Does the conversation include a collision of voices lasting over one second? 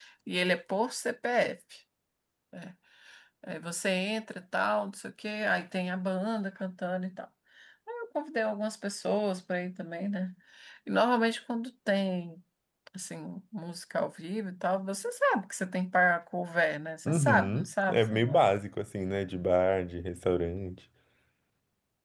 Yes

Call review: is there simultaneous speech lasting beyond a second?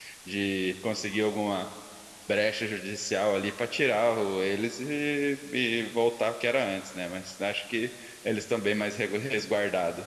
No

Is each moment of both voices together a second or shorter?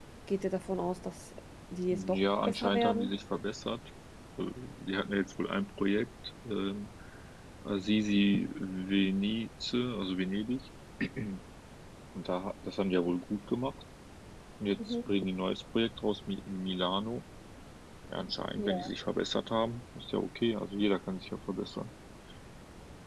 No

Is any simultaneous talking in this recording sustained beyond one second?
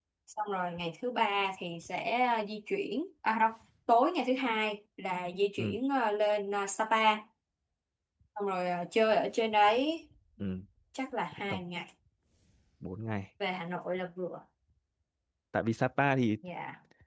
No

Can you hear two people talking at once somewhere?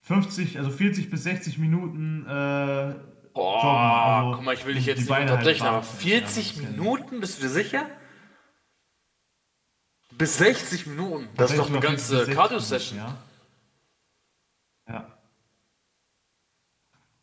Yes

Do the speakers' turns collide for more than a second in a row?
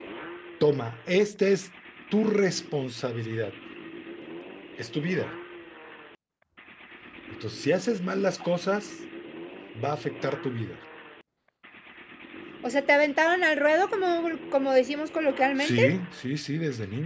No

